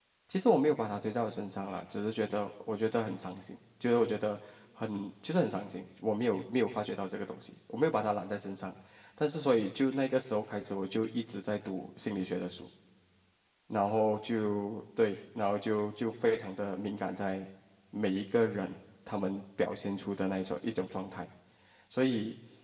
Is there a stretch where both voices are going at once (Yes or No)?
No